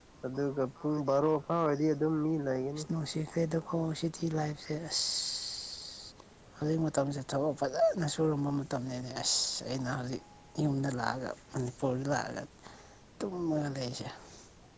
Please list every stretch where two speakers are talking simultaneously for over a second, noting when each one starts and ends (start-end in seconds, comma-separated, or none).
none